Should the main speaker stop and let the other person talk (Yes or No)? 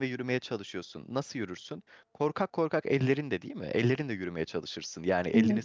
No